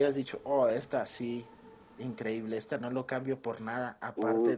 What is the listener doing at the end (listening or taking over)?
taking over